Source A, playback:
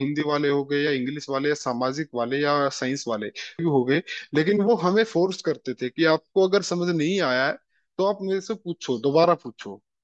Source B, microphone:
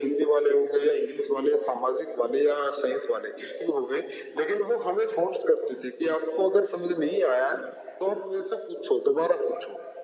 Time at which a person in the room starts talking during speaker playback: none

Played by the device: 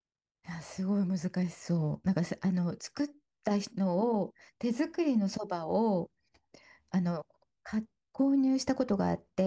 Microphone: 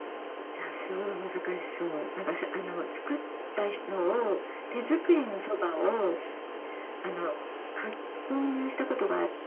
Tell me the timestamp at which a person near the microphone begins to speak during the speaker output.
none

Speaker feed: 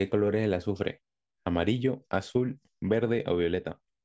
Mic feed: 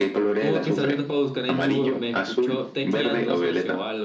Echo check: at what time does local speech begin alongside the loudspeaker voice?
0.4 s

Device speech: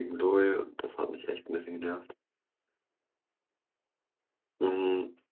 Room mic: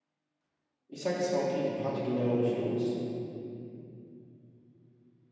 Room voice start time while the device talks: 0.9 s

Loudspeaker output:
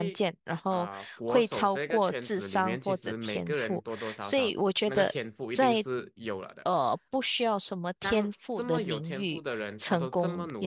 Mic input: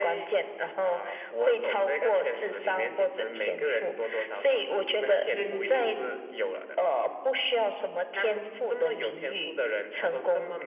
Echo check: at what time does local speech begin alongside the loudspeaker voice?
5.2 s

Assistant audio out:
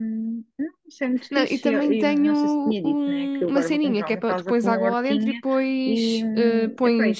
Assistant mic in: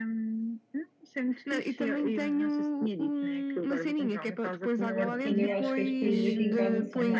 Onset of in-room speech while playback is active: 4.9 s

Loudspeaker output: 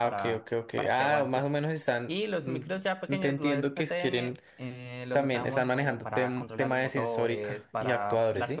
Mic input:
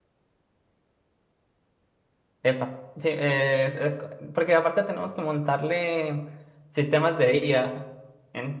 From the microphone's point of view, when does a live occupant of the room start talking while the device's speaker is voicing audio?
2.4 s

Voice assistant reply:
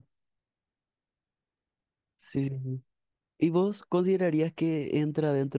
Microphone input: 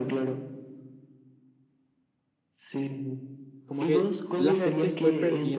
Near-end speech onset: 3.6 s

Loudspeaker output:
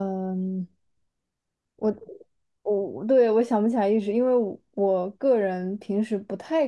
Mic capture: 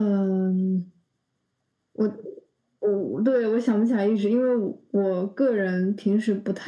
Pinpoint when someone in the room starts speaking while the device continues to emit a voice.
none

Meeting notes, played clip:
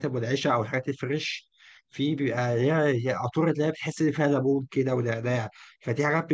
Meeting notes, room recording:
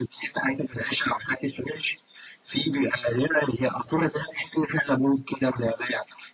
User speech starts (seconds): none

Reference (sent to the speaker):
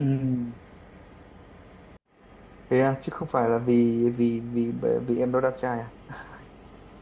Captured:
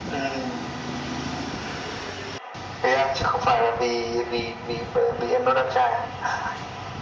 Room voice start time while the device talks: none

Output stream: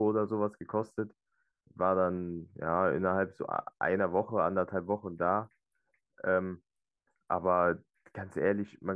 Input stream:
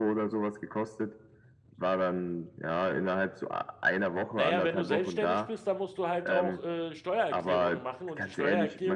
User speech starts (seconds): 4.3 s

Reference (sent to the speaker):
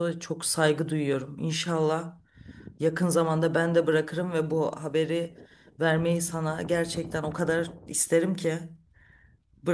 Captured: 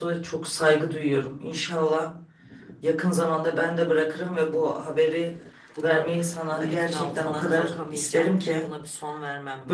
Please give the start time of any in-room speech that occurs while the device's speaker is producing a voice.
5.8 s

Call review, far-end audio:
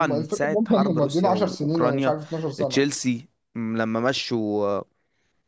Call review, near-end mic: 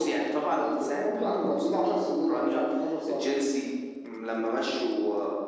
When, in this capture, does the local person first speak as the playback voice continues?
none

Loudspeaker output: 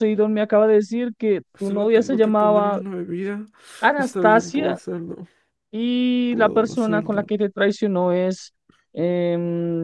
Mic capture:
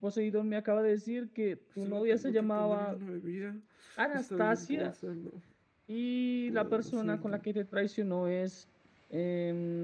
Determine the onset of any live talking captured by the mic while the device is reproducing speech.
none

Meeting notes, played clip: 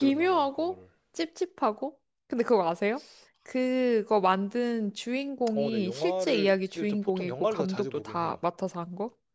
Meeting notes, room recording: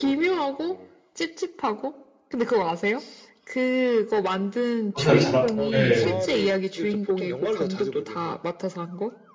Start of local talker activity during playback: 5.0 s

